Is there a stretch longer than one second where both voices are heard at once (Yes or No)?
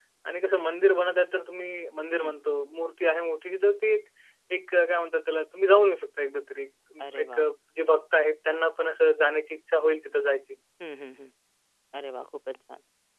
No